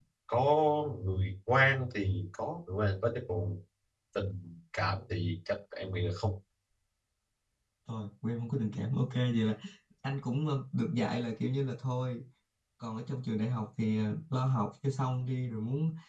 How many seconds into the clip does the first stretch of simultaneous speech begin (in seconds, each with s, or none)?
none